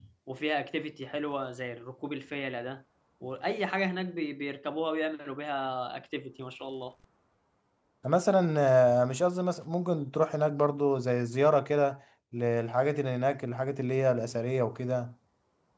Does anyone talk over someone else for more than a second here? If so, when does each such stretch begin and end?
none

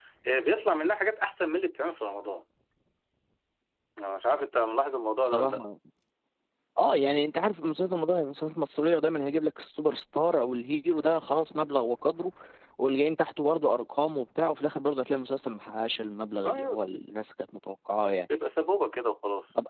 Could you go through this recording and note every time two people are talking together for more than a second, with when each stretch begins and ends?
none

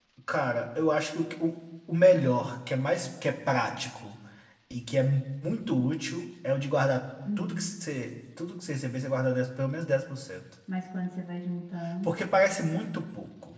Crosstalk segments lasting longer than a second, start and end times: none

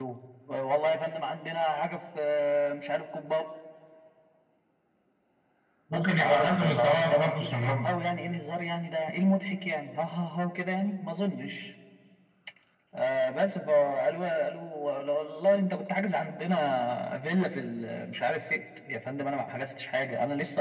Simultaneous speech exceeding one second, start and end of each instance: 6.2-8.0

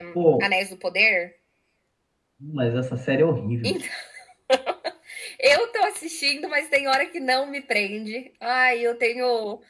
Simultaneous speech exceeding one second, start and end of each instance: none

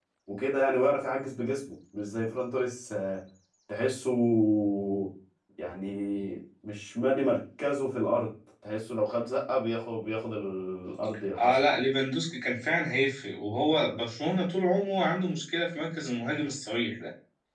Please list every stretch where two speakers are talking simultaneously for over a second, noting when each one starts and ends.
none

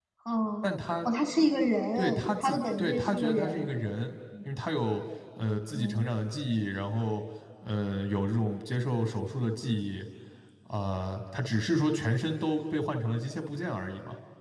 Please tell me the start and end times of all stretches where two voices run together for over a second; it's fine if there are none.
2.0-3.7

